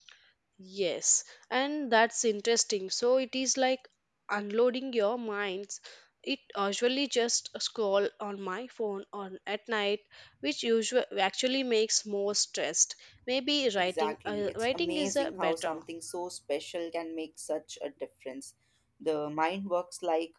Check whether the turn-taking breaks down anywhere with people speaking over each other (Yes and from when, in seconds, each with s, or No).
Yes, from 13.8 s